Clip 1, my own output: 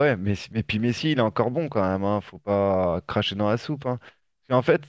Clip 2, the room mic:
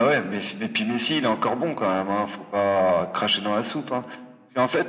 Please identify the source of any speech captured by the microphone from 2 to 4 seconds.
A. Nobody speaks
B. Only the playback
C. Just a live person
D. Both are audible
B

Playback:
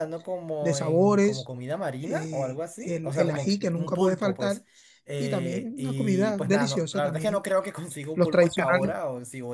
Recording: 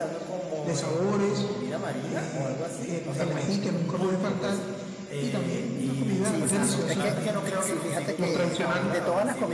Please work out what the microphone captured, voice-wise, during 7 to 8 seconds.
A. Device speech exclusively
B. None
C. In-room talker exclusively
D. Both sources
D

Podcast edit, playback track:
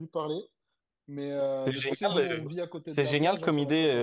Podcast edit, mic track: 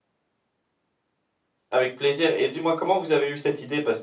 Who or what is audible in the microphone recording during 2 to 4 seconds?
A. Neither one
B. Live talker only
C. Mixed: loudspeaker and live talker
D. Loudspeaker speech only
B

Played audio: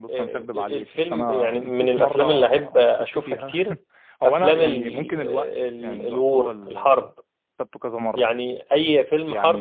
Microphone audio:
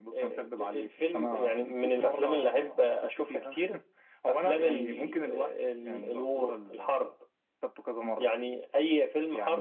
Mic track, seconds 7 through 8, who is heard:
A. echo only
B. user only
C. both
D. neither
A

